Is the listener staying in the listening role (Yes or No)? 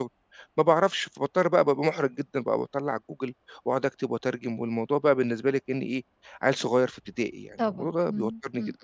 No